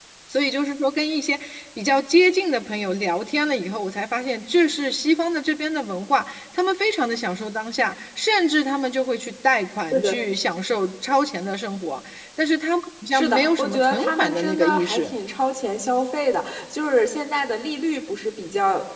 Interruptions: present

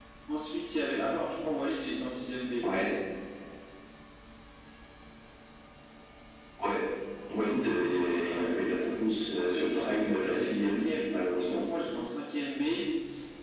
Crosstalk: present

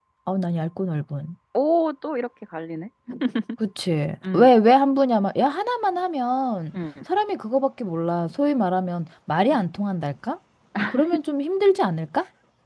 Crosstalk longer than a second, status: none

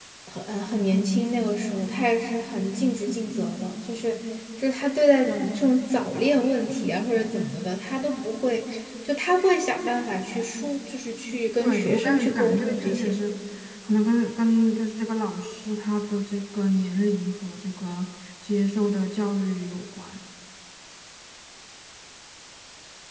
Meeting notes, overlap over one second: present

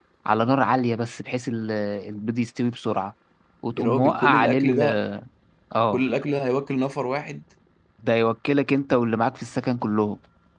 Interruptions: present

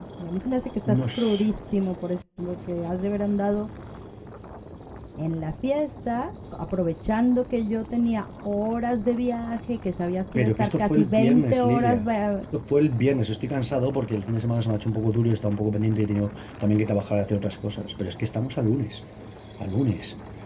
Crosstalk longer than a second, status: present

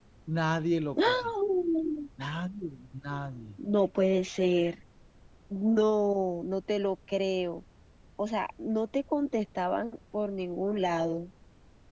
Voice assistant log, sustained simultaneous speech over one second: none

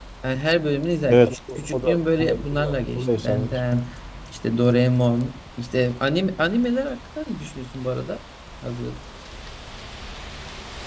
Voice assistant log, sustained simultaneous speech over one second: present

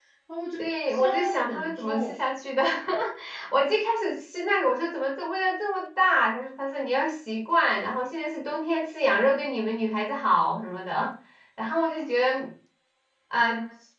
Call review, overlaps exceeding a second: present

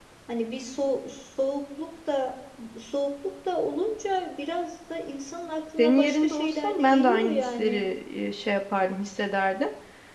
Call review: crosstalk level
present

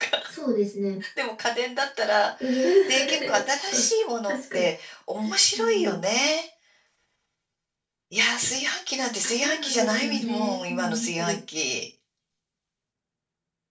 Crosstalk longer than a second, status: present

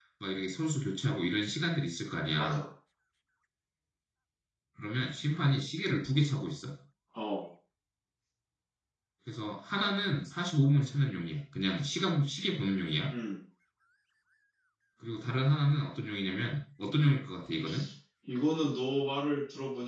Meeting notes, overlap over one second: none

